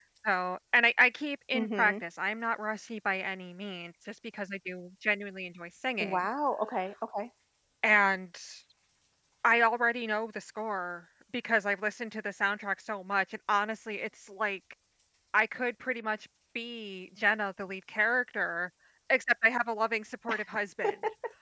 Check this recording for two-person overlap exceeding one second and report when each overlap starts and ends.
none

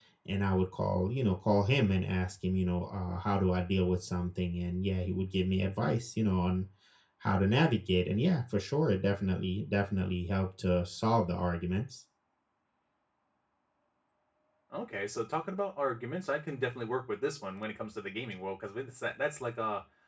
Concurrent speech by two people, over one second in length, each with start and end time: none

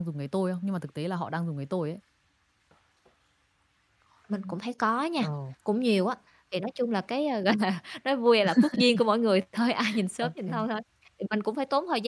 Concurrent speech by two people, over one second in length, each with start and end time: none

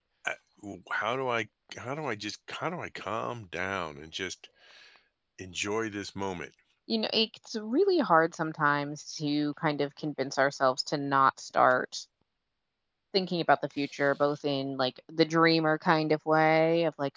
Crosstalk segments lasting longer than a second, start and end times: none

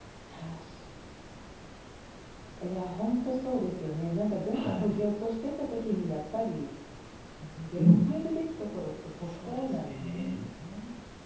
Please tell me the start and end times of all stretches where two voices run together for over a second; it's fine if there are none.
9.2-10.5

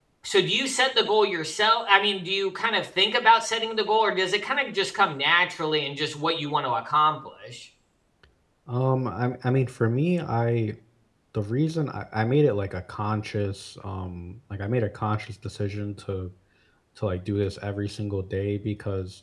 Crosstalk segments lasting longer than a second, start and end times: none

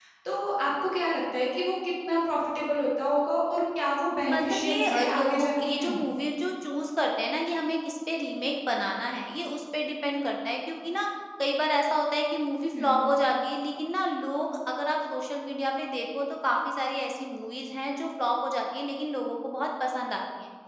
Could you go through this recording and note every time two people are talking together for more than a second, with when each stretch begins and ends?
4.3-6.0

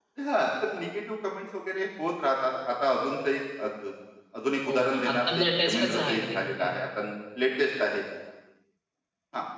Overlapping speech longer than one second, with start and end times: 4.7-6.7

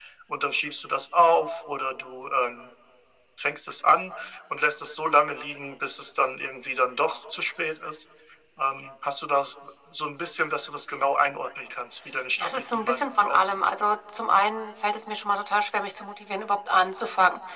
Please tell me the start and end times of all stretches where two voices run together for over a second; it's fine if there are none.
12.4-13.7

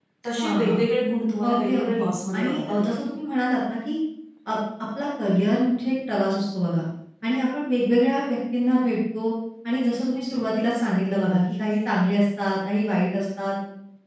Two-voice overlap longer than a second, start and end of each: 1.5-3.0

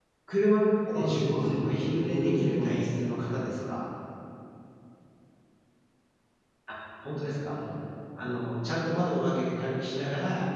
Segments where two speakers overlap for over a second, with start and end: 0.9-2.9

